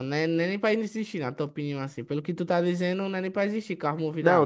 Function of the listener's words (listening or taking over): taking over